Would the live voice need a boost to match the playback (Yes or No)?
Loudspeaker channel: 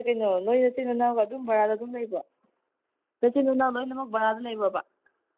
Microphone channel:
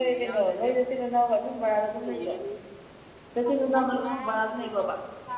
Yes